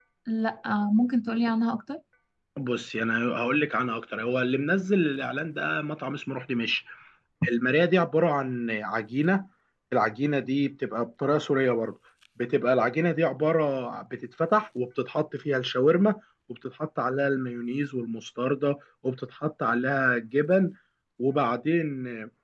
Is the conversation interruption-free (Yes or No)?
Yes